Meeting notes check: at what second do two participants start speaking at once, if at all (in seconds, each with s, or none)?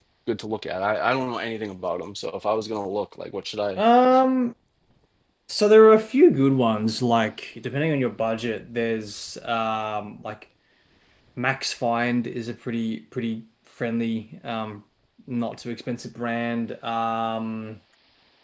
none